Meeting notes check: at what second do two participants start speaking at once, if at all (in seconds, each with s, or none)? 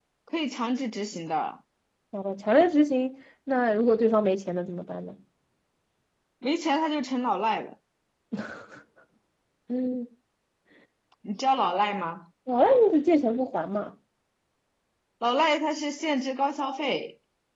none